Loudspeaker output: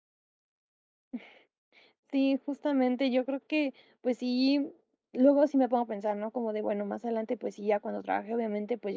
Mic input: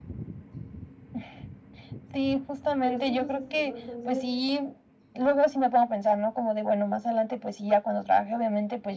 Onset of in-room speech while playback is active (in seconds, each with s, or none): 2.8 s